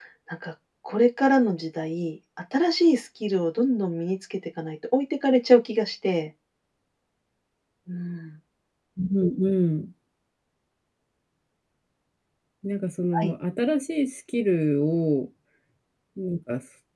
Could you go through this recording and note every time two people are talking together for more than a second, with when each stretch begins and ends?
none

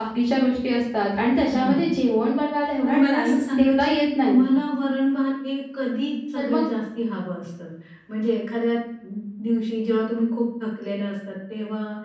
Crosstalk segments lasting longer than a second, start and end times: 2.8-4.4

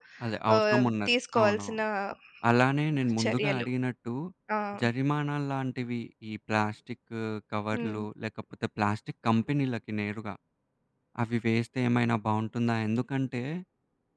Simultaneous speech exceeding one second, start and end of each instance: 0.6-1.8

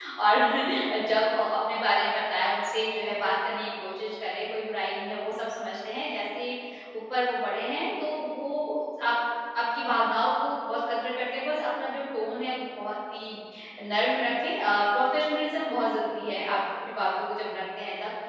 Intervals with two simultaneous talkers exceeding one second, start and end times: none

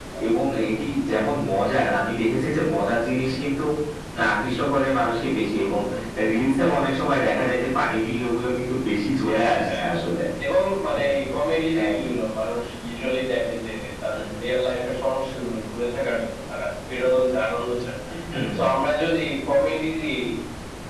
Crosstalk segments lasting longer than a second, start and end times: none

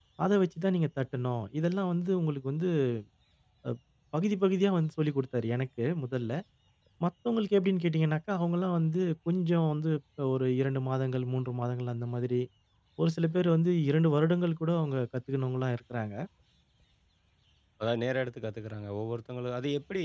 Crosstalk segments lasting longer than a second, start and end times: none

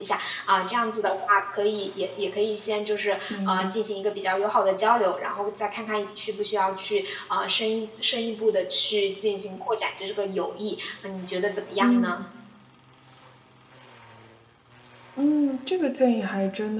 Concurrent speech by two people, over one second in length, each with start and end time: none

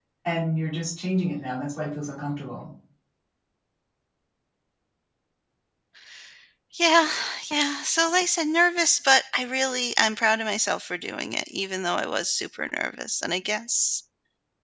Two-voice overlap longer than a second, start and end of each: none

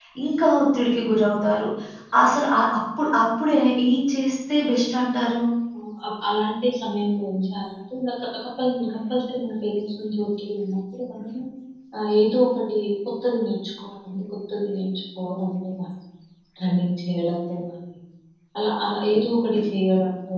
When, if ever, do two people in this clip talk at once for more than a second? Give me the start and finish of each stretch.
none

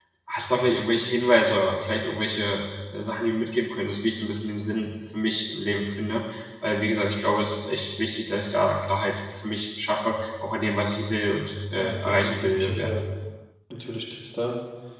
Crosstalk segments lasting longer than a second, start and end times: 11.7-13.0

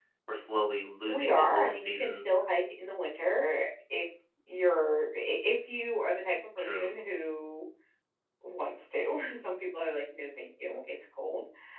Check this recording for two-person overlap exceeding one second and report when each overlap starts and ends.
1.1-2.4

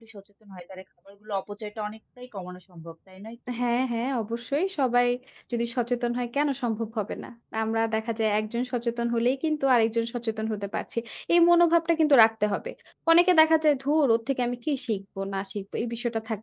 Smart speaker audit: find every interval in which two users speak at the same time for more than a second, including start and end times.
none

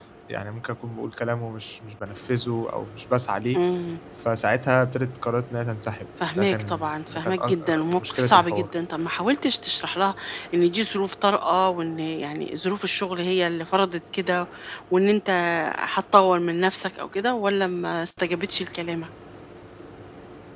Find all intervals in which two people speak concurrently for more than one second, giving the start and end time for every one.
6.3-8.7

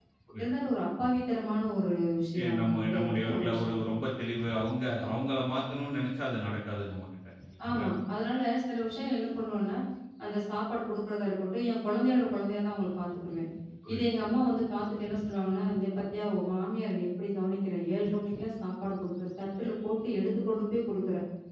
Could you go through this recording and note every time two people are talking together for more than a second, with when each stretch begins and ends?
2.4-3.8

